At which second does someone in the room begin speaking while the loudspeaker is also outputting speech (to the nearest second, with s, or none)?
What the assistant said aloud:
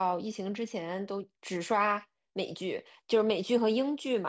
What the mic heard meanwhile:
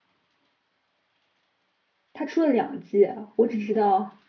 2 s